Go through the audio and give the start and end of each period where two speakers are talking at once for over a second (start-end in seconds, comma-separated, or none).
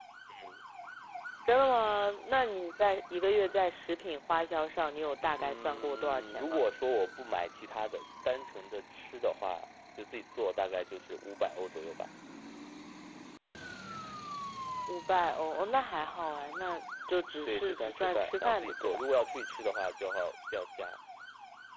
5.3-6.7, 17.4-19.1